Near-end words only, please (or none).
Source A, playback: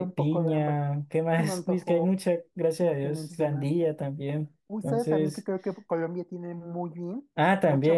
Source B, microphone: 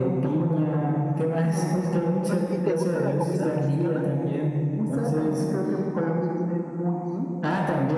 Oye, ¿y te gusta la comida mexicana?